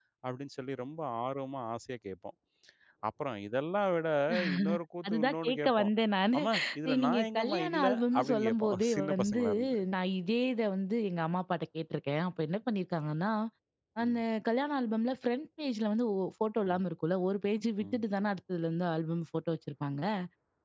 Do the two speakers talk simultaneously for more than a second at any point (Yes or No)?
Yes